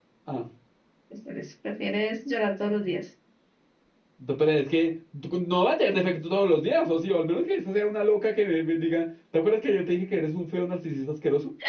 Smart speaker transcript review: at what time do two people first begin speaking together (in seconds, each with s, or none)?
none